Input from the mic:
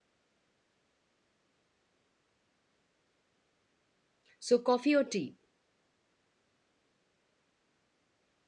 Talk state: user only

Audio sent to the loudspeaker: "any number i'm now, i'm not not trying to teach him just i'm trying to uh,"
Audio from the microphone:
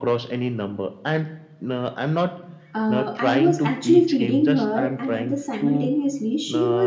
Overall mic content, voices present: both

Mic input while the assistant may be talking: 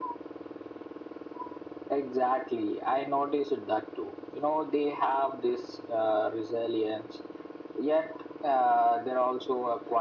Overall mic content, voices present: echo only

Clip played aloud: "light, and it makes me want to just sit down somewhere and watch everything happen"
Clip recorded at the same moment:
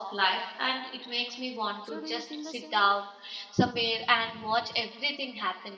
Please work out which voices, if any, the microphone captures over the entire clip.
both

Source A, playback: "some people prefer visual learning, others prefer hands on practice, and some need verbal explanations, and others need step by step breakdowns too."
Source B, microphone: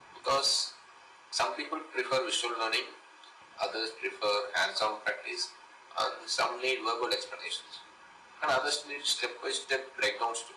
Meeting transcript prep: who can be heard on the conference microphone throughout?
echo only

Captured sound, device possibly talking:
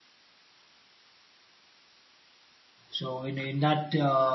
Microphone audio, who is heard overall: user only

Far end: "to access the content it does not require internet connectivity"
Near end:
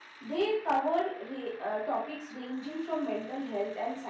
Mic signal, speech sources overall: user only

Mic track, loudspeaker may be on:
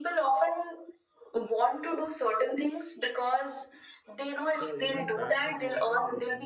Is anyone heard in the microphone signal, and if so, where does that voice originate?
both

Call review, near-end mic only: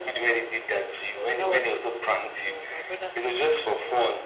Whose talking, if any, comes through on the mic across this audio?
both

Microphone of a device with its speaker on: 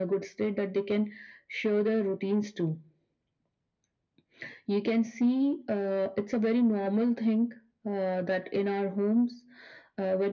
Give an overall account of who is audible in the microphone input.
echo only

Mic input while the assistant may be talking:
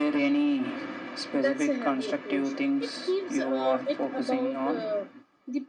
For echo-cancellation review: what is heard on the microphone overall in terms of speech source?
echo only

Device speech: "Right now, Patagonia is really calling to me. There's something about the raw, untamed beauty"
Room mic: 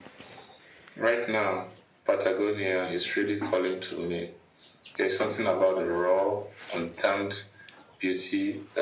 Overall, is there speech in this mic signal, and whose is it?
echo only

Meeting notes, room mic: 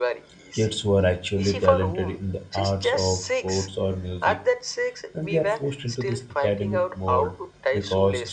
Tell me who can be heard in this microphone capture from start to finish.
both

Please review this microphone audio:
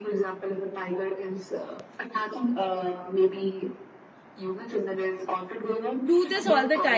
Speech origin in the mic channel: both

